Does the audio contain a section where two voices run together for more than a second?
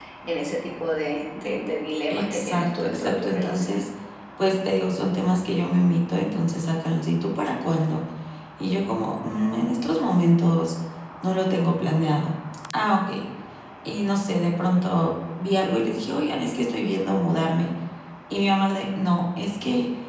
Yes, from 2.1 s

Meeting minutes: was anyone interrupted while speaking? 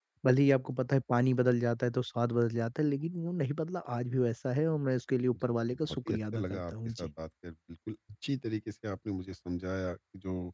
Yes, from 5.3 s

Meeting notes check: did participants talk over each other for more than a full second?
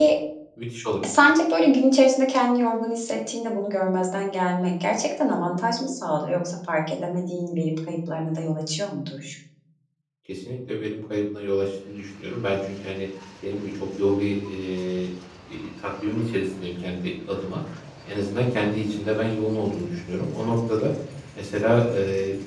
No

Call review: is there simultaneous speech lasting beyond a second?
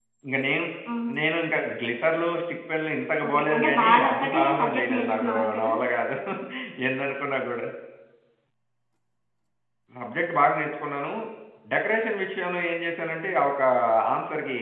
Yes, from 3.2 s

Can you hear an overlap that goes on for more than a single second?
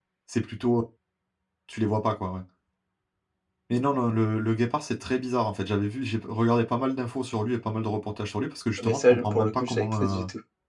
Yes, from 8.8 s

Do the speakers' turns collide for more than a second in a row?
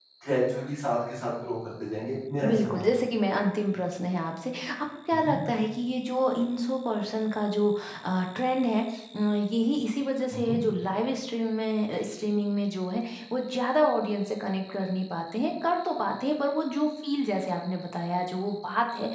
No

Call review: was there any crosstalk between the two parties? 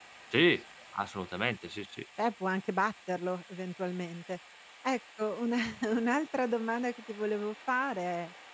No

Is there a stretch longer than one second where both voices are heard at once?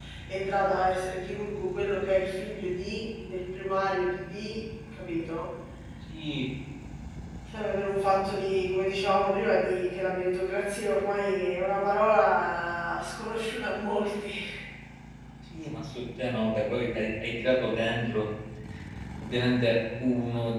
No

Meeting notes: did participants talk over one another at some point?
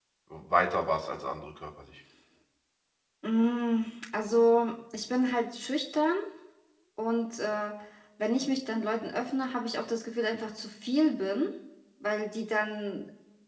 No

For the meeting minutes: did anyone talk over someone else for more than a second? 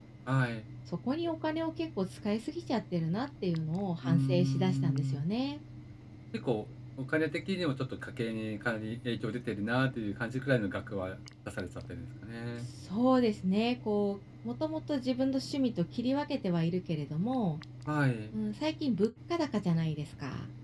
Yes, from 4.0 s

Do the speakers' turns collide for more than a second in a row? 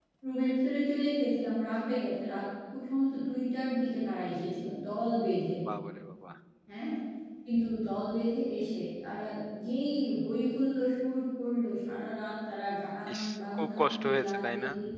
Yes, from 13.1 s

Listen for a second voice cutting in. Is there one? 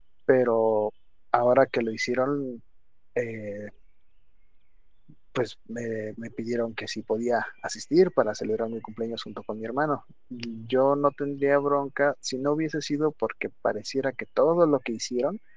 No

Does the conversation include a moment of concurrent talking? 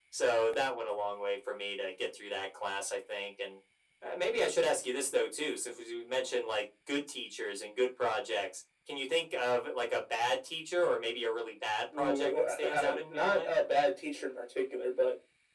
Yes, from 11.9 s

